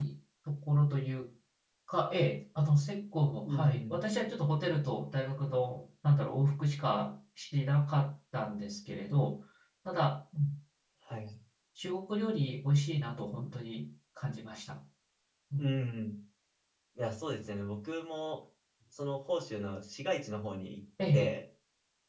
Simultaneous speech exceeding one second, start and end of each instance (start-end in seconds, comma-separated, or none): none